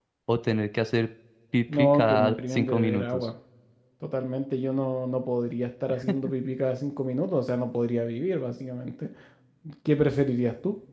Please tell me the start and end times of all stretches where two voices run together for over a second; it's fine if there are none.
1.7-3.3

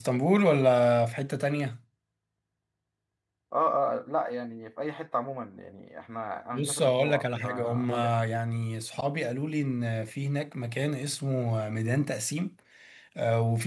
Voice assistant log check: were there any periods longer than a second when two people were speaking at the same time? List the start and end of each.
6.5-8.1

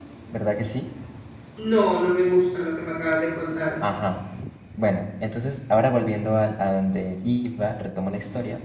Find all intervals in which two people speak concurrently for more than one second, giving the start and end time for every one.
none

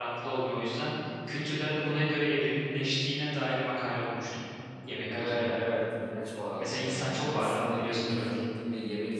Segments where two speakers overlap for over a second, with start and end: 6.6-8.4

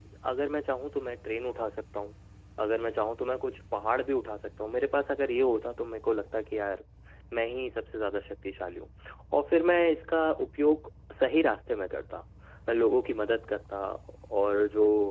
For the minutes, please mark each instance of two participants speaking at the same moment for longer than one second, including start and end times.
none

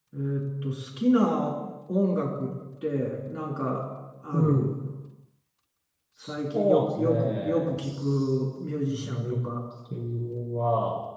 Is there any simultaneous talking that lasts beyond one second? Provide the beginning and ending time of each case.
6.5-8.3

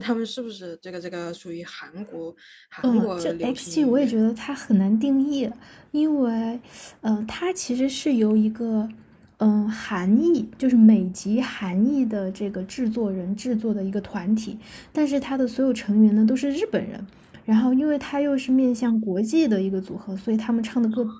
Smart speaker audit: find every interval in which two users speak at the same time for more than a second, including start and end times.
2.8-4.1

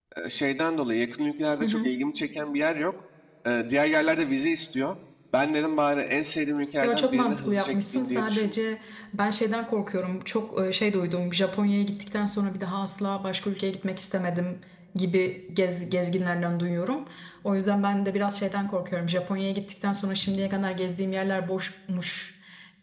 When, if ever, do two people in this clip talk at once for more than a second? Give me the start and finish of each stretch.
6.8-8.6

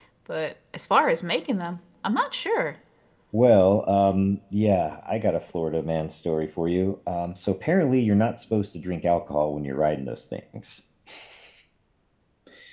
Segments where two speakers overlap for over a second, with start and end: none

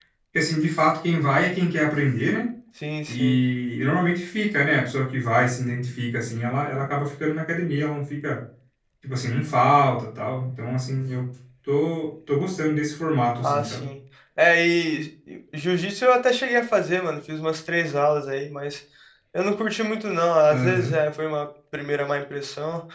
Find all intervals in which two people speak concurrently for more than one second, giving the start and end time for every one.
none

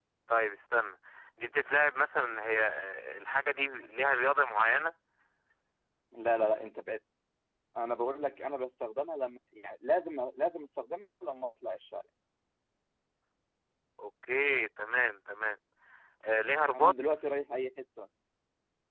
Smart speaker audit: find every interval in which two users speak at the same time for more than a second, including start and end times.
none

